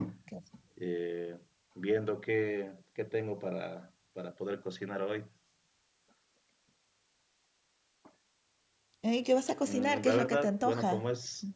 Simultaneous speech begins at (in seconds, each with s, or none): 9.7 s